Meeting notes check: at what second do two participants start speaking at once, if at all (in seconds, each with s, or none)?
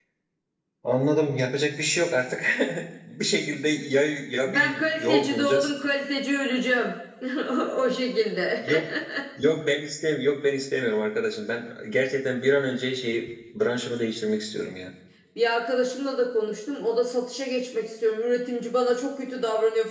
4.5 s